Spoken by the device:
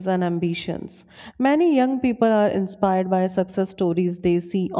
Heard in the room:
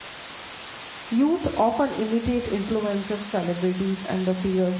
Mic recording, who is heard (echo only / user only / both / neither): user only